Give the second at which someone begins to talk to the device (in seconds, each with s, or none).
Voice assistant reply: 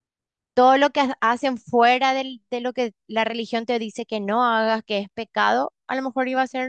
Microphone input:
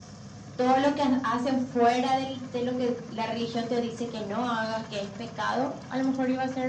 none